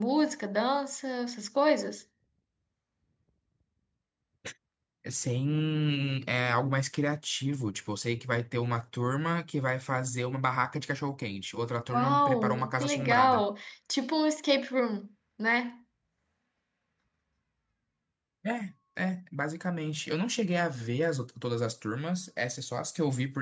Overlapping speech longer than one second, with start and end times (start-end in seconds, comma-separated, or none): 11.9-13.4